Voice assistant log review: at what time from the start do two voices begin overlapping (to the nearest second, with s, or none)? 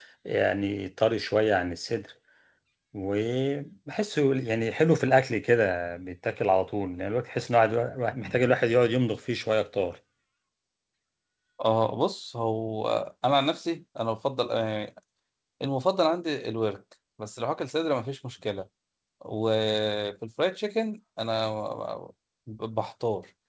none